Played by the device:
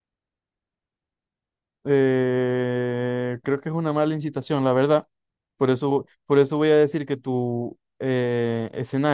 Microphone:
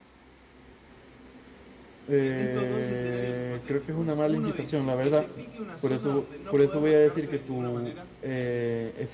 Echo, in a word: present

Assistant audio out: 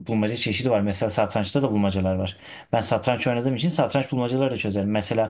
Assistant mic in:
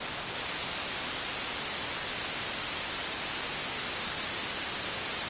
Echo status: none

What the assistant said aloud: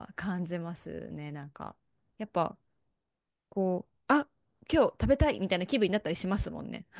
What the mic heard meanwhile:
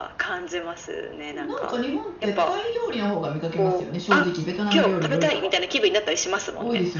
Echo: present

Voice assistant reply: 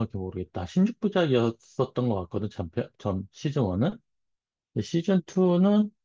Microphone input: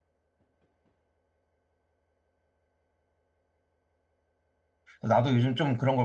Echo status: none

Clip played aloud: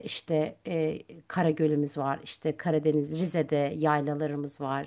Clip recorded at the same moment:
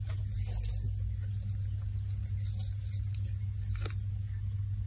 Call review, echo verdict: none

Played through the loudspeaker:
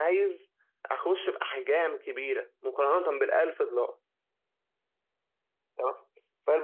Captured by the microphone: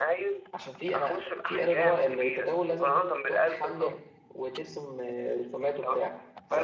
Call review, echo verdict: present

